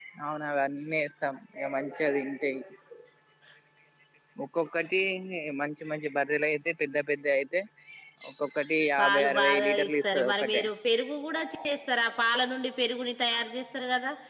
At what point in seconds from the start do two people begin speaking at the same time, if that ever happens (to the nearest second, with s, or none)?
9 s